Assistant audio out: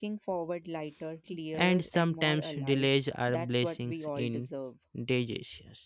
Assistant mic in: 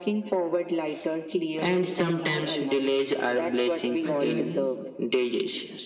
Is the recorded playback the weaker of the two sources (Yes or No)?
No